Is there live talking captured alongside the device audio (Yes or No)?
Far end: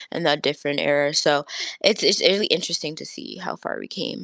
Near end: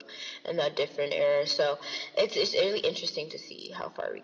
No